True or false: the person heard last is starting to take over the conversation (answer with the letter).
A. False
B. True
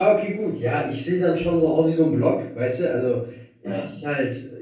A